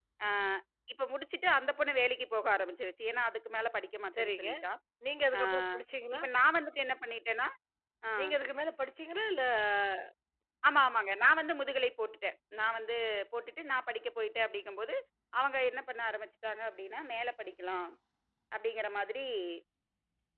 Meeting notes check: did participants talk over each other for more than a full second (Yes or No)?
No